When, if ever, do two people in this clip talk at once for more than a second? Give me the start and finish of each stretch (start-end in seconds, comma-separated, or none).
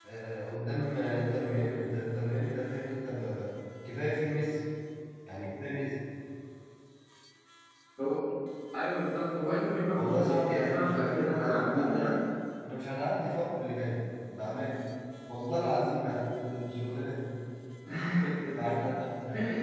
10.0-12.2